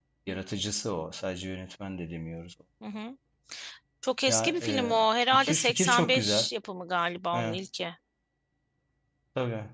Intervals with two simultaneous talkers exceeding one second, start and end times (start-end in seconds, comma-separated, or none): 4.3-6.5